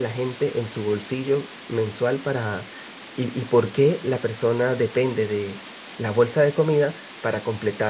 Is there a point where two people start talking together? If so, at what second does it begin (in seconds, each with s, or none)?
none